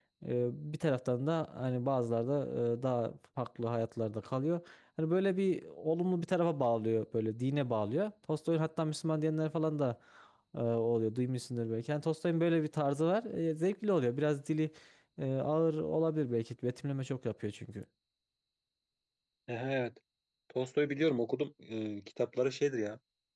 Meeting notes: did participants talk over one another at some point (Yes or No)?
No